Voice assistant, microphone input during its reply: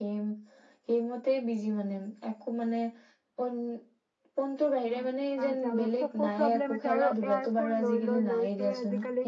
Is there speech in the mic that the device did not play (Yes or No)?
Yes